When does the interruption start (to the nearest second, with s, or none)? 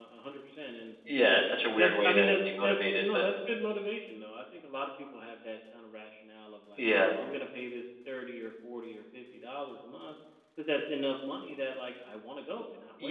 2 s